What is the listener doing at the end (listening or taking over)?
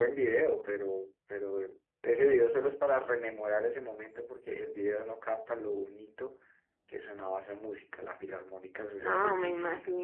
taking over